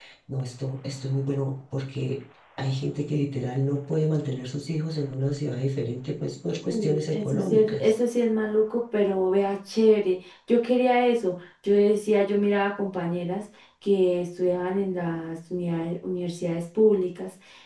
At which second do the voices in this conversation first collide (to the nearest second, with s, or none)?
7 s